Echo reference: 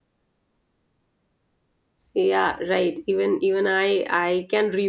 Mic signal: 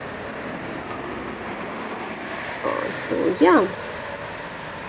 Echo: none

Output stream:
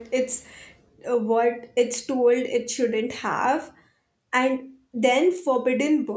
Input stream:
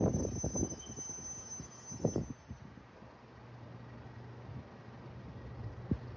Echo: none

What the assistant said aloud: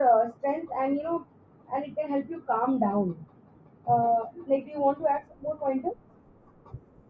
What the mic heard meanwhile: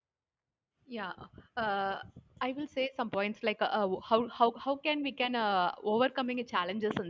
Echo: none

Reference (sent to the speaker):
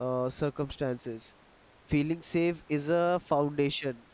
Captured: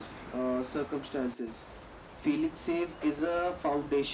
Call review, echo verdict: present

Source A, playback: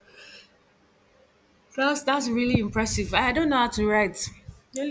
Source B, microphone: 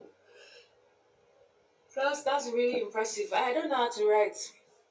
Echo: present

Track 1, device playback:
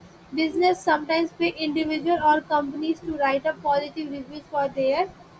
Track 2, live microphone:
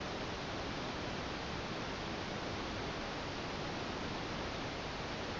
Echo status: none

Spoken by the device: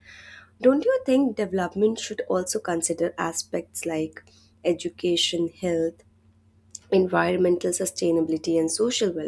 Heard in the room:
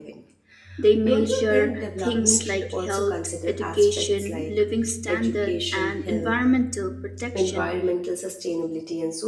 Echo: present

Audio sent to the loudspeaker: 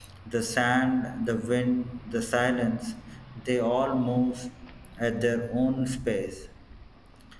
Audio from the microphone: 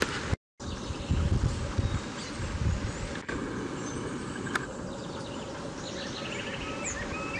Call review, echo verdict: none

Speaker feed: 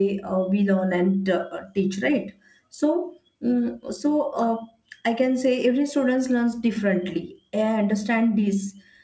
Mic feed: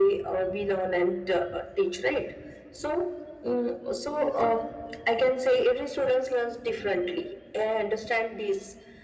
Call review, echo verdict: present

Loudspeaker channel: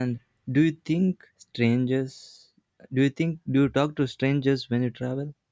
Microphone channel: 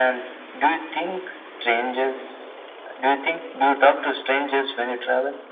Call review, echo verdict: present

